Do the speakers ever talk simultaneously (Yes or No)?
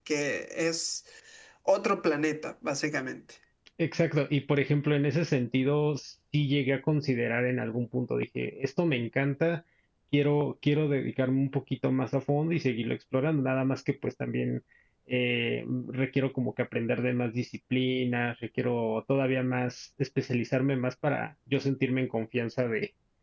No